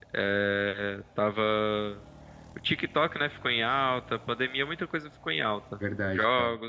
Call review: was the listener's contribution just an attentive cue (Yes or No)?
Yes